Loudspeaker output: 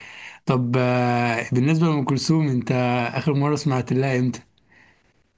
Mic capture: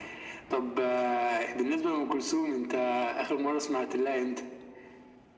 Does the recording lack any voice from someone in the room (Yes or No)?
Yes